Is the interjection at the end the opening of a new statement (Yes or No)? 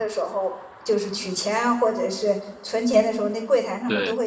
No